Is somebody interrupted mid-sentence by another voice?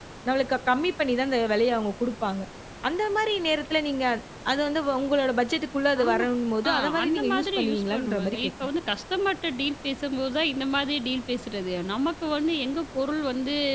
Yes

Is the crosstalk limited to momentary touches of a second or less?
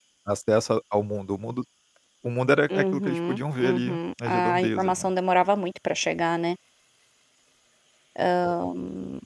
No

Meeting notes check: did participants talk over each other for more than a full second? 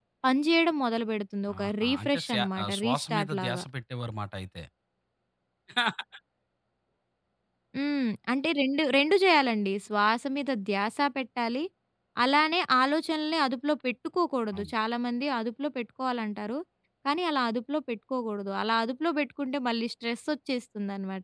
Yes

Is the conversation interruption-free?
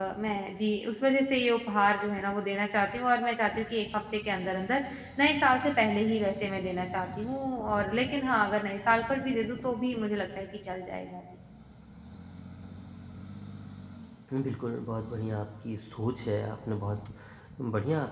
Yes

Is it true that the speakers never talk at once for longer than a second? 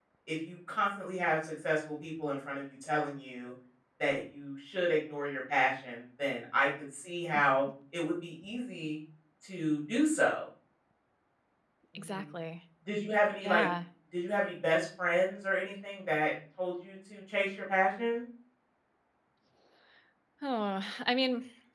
Yes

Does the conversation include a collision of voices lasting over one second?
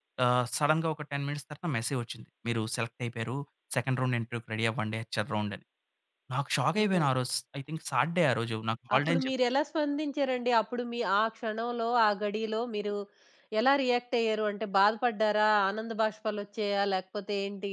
No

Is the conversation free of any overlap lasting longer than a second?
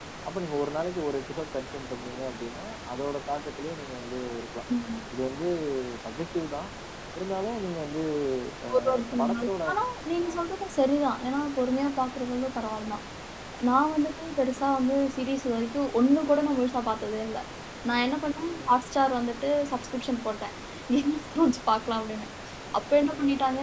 Yes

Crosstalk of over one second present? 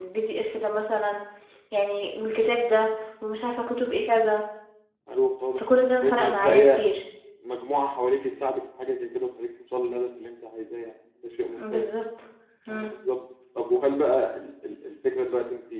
Yes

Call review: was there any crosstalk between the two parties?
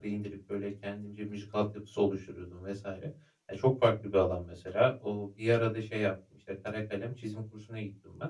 No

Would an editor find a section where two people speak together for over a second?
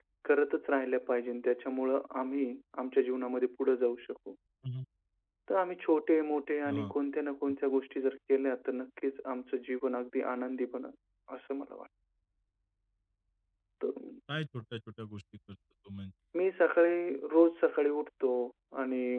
No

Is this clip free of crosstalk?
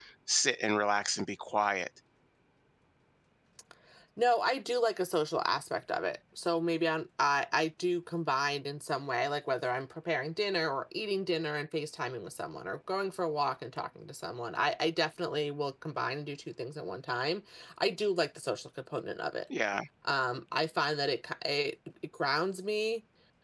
Yes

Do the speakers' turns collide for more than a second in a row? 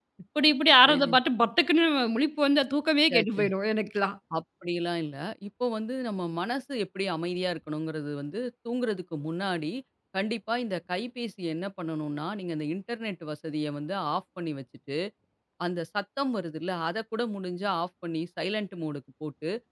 No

